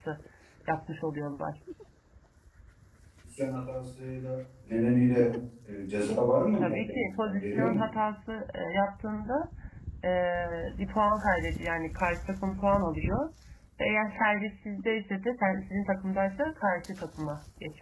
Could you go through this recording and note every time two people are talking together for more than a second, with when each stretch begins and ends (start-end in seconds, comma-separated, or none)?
6.6-7.8